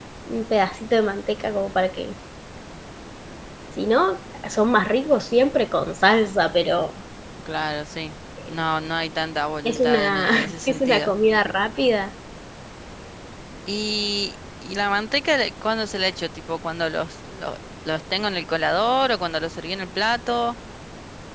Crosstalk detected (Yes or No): Yes